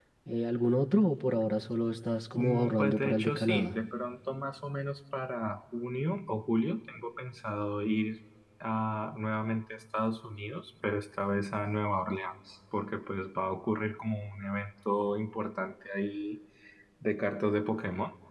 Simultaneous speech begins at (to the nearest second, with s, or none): 2 s